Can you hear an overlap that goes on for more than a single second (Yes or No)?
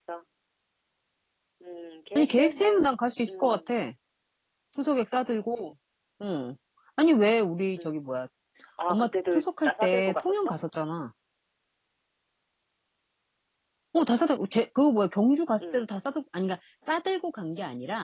Yes